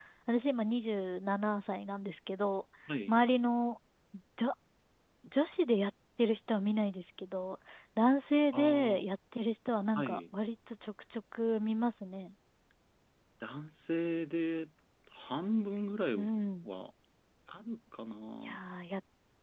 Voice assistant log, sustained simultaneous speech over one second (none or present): none